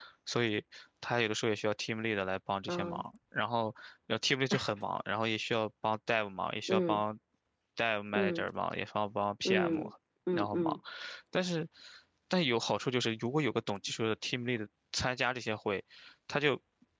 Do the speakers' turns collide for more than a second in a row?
No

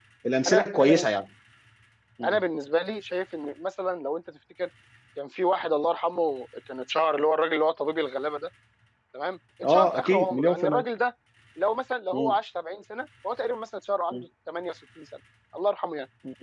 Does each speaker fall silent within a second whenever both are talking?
No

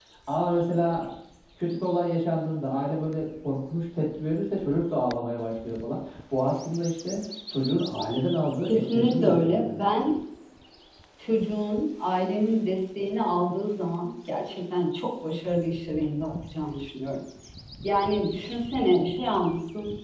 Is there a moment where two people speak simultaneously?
Yes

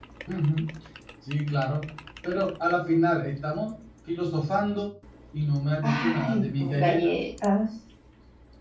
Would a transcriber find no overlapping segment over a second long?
No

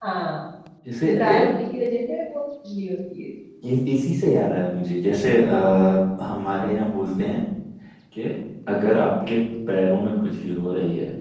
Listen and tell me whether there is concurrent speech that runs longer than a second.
No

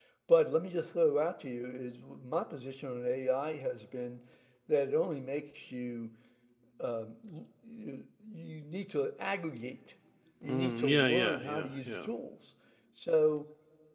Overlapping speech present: Yes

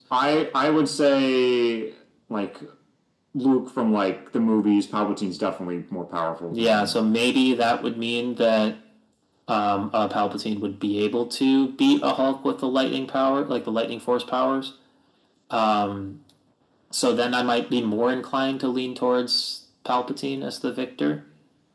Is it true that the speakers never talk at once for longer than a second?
Yes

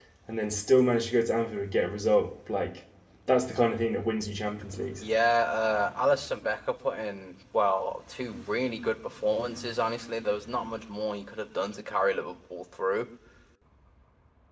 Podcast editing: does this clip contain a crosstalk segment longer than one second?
No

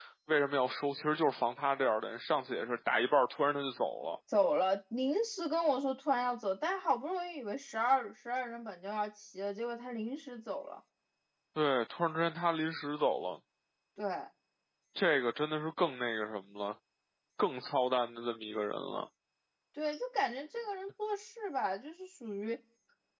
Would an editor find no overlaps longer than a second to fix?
Yes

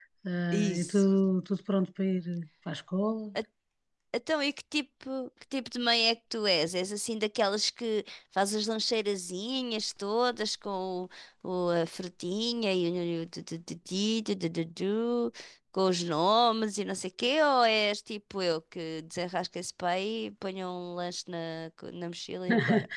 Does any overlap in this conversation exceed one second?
No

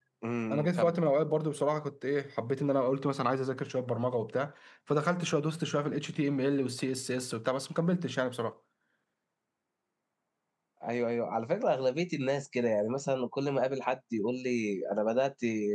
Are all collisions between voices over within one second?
Yes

